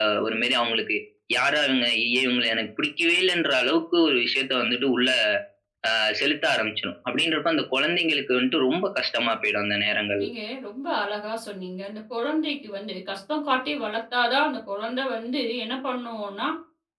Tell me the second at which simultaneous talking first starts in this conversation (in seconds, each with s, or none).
none